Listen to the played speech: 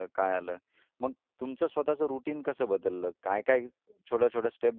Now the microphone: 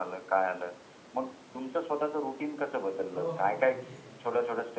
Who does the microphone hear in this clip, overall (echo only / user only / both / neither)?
both